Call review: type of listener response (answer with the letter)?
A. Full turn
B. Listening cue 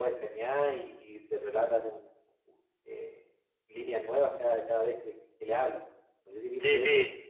A